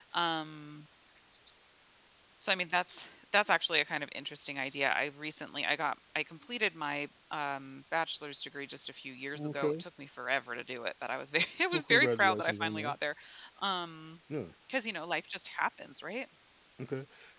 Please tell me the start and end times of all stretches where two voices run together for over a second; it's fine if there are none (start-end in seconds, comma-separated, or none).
11.7-12.9